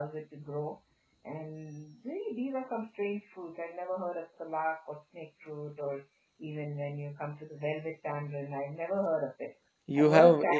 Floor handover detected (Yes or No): Yes